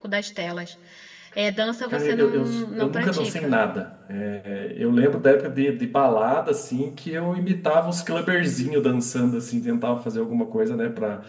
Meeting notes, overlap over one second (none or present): present